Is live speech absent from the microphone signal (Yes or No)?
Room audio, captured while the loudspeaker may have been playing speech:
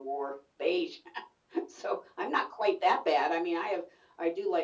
Yes